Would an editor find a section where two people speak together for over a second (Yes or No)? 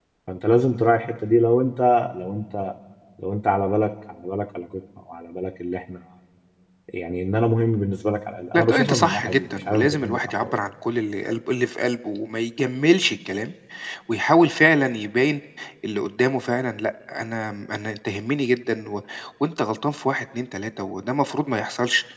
Yes